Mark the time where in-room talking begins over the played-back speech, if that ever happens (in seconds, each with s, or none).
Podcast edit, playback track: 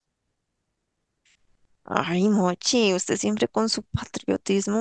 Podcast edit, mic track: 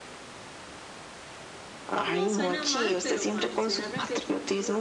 2.0 s